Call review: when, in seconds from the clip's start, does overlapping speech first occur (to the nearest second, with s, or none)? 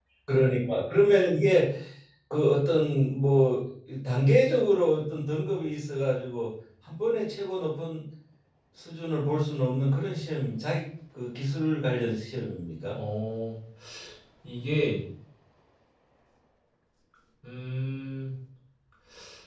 none